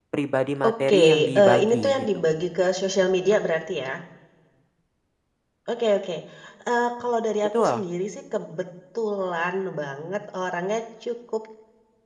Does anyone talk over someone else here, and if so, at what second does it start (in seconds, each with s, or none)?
0.7 s